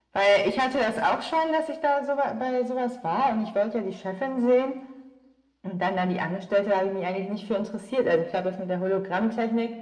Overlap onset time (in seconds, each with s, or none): none